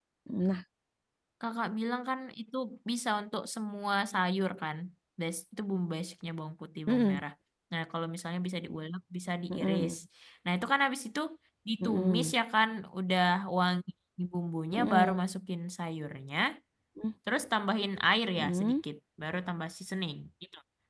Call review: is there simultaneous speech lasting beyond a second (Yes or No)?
No